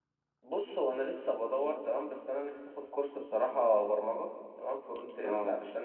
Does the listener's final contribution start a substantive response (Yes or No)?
No